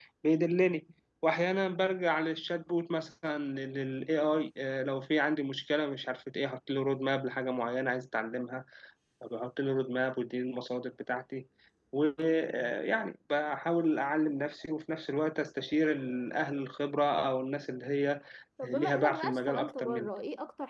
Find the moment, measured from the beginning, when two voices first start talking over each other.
18.6 s

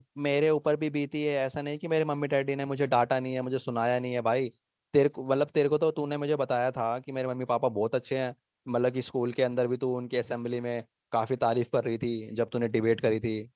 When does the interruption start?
none

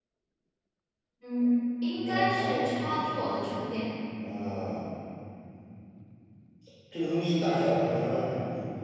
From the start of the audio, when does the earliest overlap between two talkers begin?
2.0 s

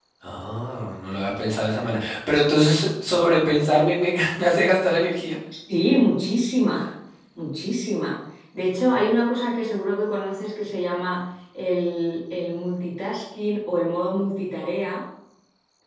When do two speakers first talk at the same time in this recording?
none

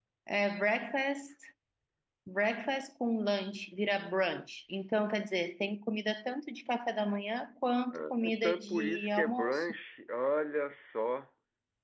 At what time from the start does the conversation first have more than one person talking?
7.9 s

